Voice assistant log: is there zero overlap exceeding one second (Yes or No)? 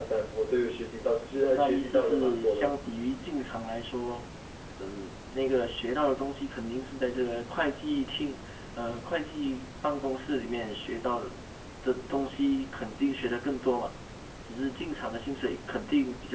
No